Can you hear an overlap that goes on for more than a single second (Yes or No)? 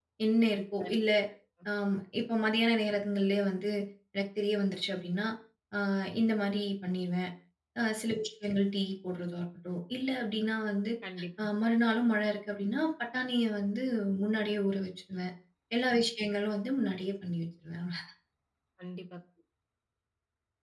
No